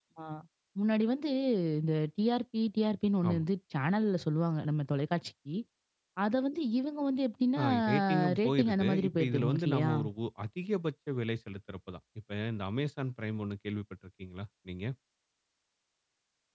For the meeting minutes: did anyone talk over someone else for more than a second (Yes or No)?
Yes